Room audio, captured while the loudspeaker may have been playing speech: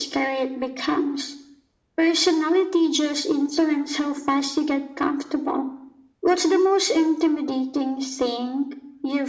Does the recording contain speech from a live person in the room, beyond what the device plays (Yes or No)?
No